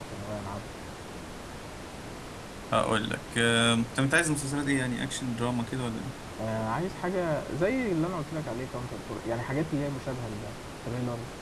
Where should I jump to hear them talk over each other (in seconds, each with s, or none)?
none